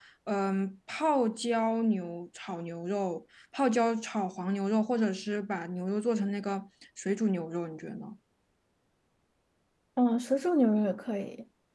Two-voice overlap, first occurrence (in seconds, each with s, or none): none